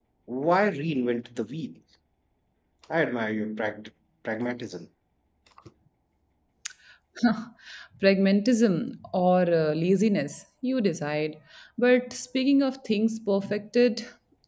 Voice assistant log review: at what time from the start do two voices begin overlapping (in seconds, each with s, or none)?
none